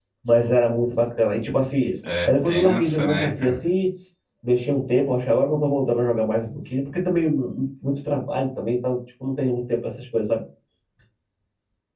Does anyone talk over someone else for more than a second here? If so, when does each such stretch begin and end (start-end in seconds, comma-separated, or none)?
2.3-3.5